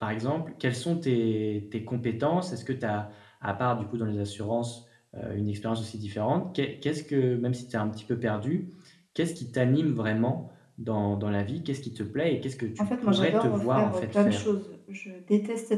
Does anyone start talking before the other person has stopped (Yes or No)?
Yes